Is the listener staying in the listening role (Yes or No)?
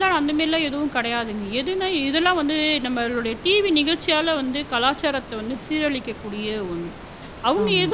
No